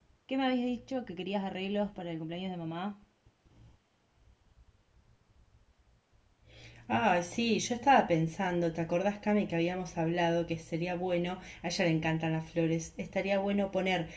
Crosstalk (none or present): none